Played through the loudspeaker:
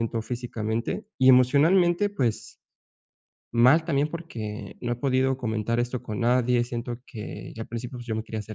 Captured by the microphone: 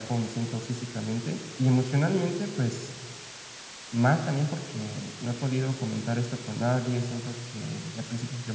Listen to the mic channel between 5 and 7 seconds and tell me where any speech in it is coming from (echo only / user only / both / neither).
echo only